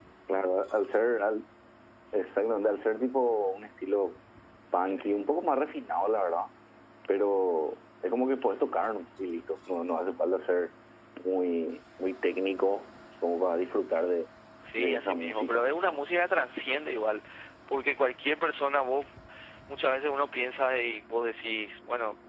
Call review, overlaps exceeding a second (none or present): present